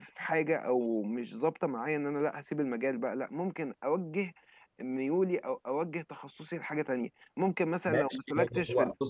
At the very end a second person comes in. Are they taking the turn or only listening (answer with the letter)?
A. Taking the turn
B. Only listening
A